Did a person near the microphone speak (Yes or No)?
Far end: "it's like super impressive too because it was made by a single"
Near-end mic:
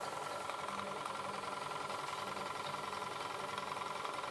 No